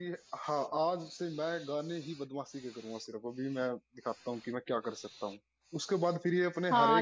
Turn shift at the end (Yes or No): No